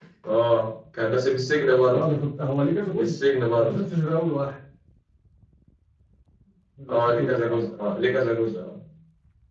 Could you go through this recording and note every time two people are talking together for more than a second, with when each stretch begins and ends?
none

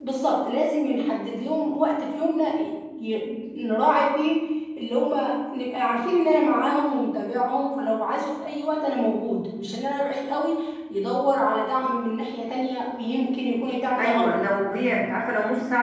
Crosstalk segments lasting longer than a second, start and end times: none

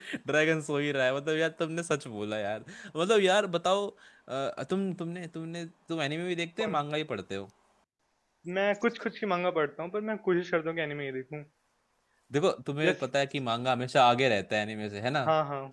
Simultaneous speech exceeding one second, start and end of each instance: none

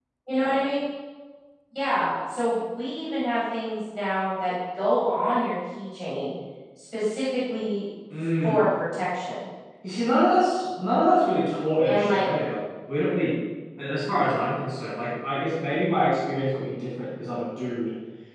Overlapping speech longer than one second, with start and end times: none

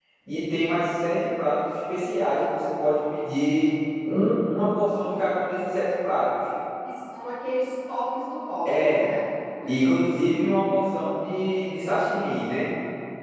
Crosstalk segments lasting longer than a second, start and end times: none

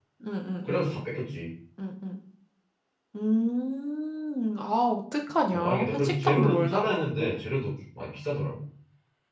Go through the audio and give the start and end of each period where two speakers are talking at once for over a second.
5.5-7.4

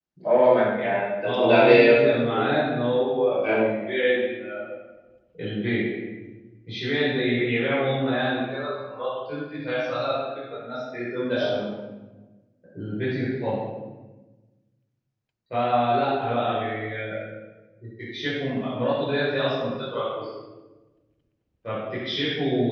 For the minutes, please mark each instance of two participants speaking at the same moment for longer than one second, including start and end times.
1.2-2.5

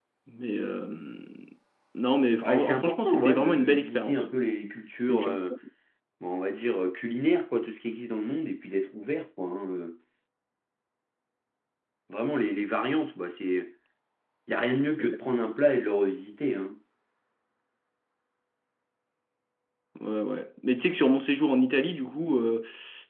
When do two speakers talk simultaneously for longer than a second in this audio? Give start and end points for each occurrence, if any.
2.4-4.2

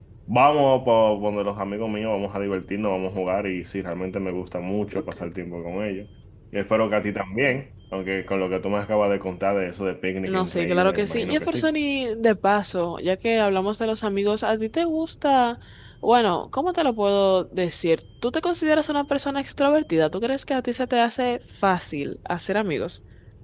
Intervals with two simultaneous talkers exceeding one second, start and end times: 10.3-11.7

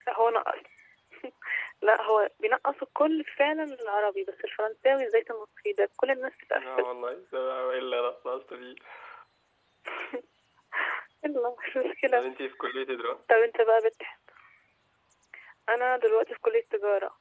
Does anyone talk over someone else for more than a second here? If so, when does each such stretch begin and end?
none

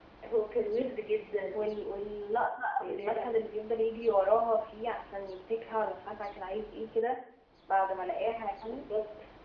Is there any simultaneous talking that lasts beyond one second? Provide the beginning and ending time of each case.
none

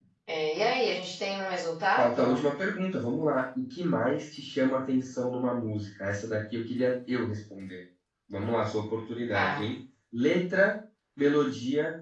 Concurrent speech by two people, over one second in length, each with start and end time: none

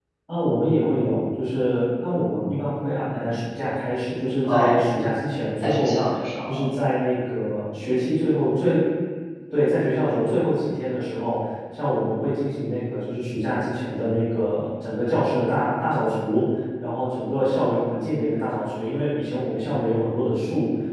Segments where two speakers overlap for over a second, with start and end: none

